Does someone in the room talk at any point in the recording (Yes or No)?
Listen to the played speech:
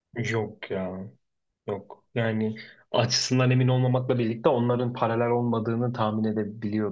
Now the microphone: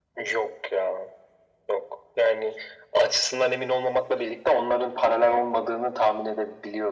No